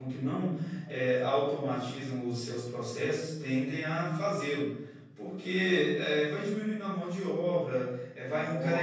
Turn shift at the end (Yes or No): No